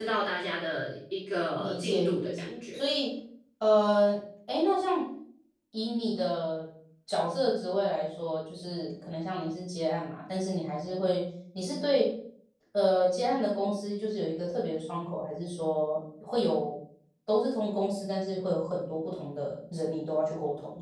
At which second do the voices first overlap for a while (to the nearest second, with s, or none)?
2 s